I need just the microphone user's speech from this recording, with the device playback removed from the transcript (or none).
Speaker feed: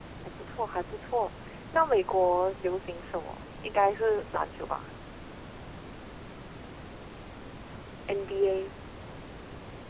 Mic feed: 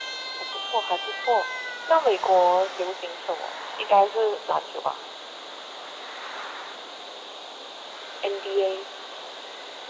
none